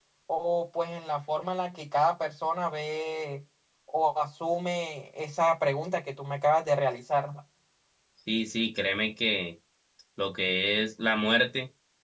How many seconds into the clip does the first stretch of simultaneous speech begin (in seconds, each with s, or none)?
none